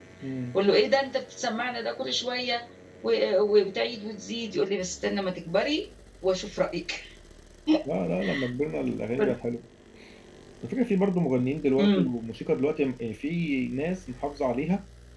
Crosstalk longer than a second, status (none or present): none